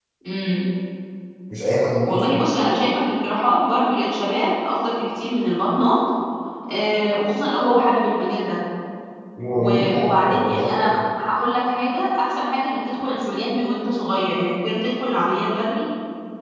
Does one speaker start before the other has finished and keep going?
Yes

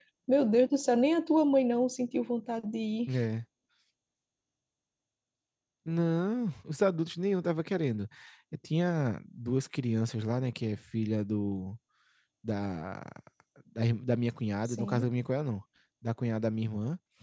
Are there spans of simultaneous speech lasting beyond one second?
No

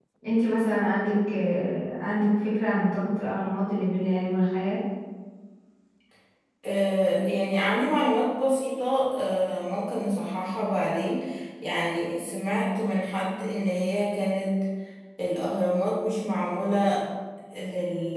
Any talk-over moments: No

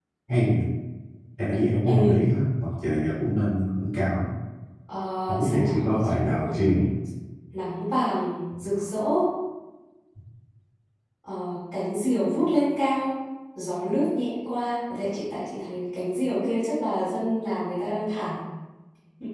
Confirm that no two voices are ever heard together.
No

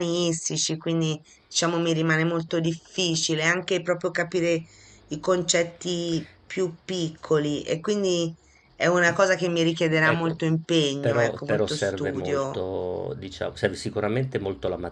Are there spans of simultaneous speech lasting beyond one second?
Yes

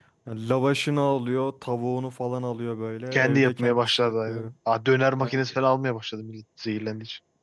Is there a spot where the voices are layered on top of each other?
Yes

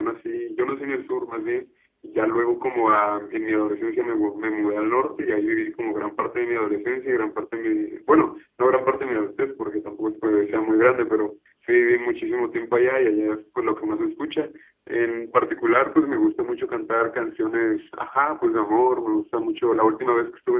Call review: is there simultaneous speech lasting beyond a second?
No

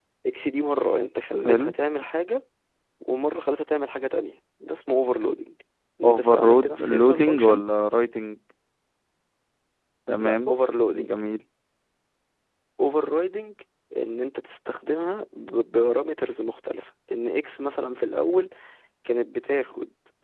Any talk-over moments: Yes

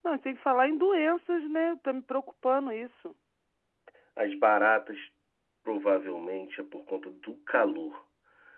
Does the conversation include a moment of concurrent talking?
No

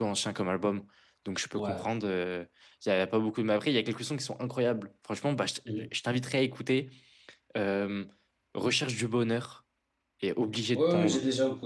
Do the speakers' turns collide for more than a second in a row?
No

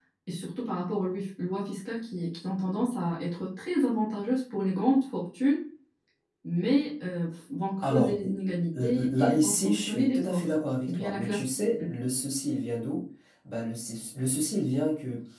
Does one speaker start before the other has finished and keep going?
Yes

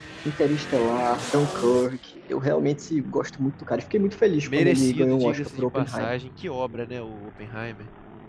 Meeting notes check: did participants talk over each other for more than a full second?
Yes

